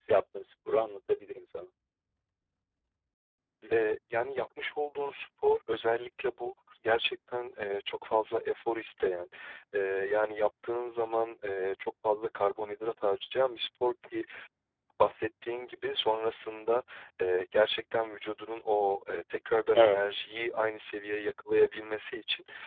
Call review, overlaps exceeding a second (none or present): none